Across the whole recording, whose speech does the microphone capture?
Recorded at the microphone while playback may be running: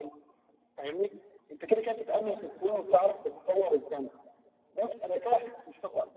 echo only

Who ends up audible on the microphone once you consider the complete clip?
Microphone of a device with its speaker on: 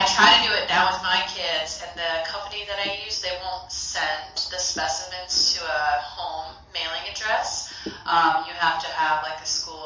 echo only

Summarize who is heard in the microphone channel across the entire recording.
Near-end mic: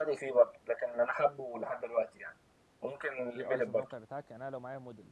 both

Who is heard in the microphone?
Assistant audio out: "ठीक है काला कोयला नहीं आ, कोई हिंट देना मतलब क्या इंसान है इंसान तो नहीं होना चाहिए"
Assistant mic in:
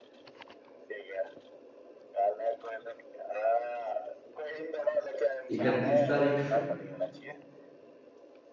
both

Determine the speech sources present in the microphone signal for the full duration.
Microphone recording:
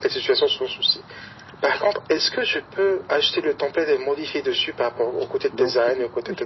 both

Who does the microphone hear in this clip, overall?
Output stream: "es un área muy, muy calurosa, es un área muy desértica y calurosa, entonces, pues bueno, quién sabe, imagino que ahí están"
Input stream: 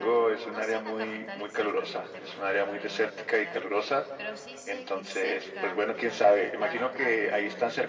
both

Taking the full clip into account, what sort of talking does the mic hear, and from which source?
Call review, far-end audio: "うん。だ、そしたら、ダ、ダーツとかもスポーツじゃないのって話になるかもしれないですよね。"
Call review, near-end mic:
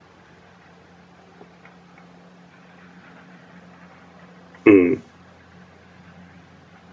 user only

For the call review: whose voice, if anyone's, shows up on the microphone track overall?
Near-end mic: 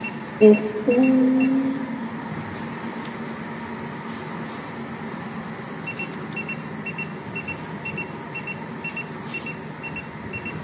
user only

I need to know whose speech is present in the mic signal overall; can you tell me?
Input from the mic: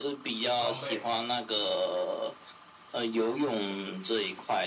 both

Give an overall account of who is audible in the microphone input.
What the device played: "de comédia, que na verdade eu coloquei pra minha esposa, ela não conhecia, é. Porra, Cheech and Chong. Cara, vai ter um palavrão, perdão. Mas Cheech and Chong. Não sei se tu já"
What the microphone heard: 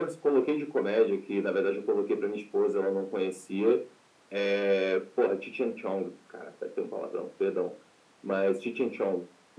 echo only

